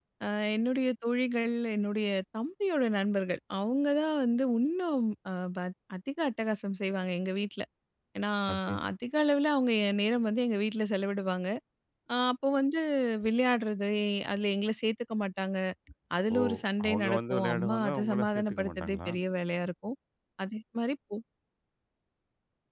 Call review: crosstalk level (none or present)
present